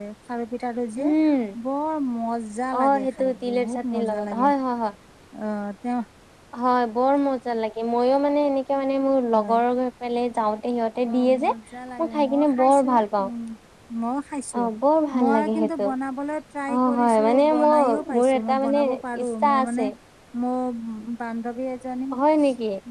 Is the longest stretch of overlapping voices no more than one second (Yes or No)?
No